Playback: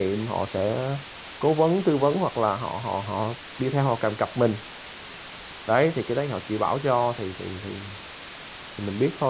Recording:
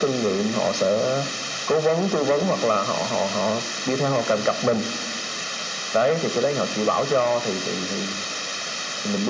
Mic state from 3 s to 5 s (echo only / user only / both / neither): echo only